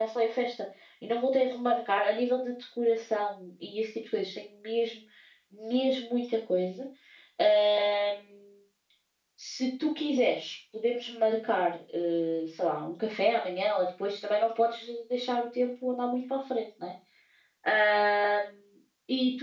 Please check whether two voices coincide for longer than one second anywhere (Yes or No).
No